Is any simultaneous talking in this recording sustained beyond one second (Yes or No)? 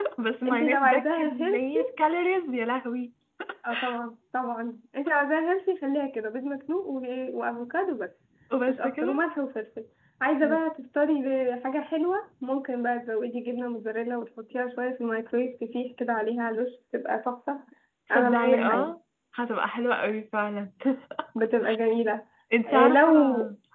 Yes